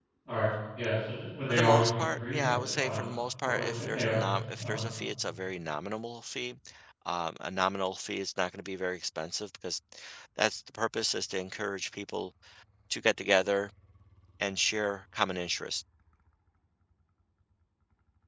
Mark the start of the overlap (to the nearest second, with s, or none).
1 s